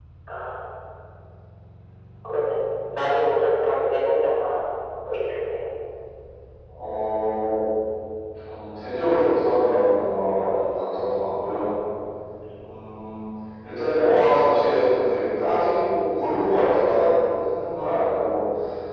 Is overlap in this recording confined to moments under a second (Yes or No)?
Yes